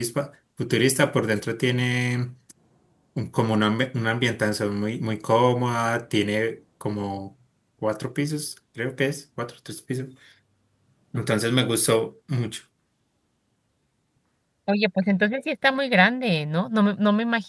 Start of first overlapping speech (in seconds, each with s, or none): none